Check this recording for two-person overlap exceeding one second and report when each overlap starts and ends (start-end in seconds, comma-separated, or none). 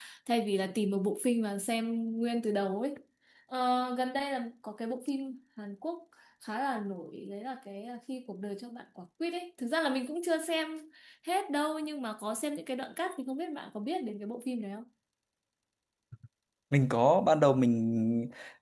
none